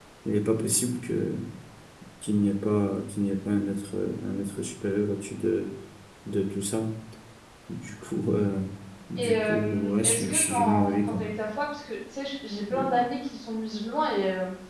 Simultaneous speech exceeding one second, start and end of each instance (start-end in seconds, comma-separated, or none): 9.2-11.2